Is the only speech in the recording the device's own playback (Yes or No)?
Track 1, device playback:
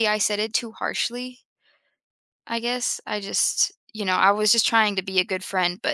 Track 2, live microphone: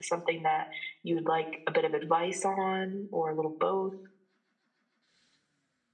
No